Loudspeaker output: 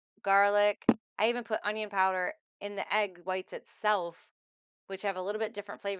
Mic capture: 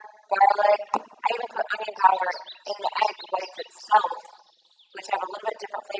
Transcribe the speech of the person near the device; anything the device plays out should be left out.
none

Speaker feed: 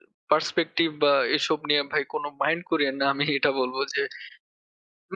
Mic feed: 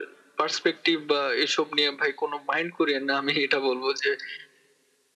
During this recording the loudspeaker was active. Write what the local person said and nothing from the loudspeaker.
none

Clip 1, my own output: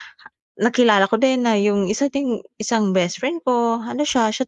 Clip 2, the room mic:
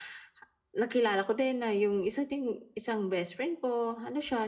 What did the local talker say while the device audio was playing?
none

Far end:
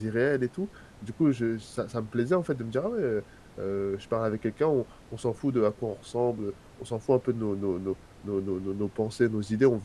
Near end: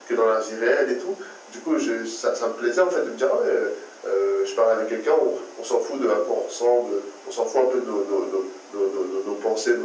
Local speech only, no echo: none

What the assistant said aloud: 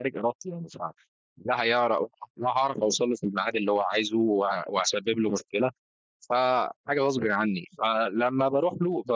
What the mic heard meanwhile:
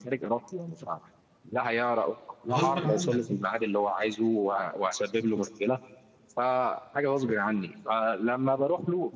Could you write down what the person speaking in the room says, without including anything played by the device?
غصبًا عنك دي.

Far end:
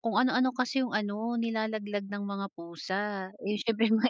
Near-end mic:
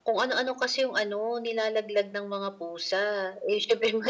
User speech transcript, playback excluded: none

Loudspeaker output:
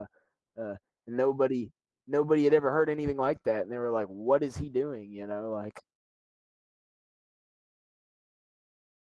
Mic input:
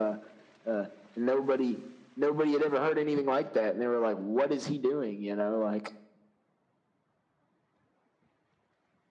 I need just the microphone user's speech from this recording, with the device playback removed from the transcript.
none

